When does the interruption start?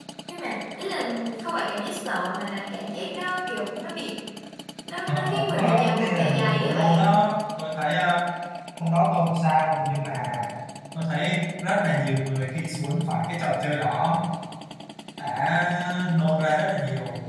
5.1 s

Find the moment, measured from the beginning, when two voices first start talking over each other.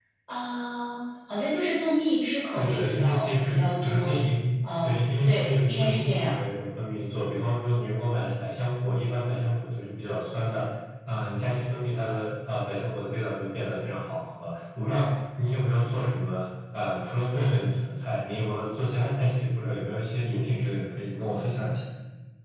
2.5 s

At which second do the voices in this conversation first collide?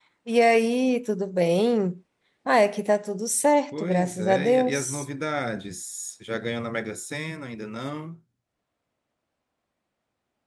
3.7 s

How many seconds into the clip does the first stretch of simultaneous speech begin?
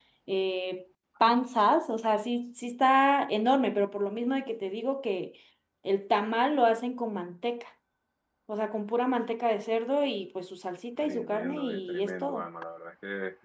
11.0 s

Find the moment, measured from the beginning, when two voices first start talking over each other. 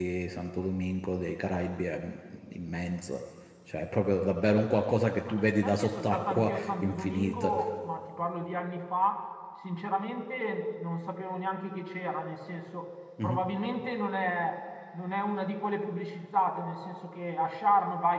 5.3 s

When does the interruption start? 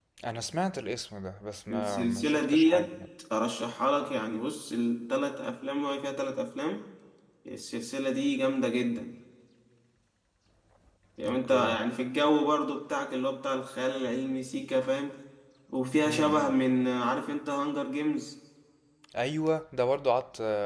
1.7 s

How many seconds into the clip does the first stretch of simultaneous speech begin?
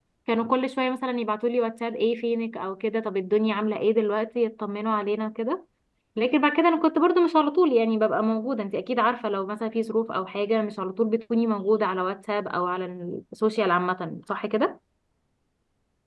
none

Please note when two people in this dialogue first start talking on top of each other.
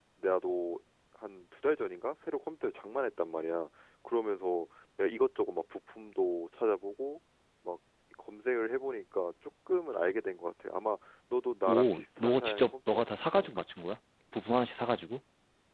11.7 s

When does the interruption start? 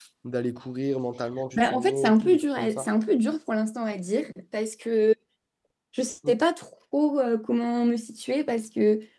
1.6 s

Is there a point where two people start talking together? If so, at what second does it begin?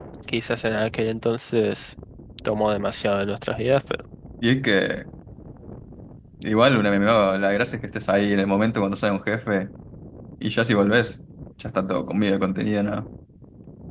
none

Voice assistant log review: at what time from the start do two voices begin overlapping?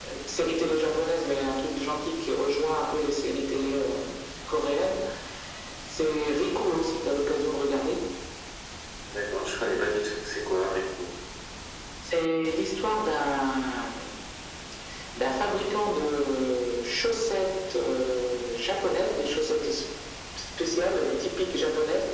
none

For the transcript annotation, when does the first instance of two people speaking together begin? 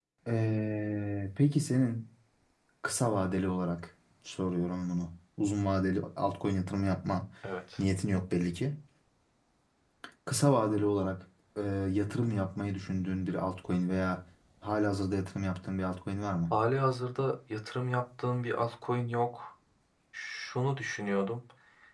none

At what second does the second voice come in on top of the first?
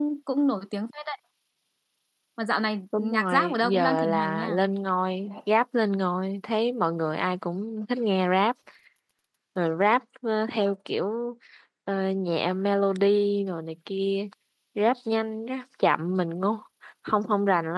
3.0 s

